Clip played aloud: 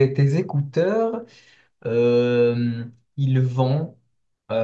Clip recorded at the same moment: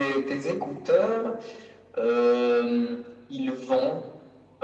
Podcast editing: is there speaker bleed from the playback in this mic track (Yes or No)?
Yes